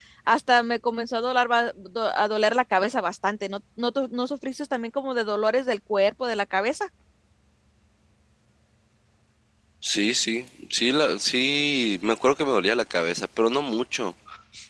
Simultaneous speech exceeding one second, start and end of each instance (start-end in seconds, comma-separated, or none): none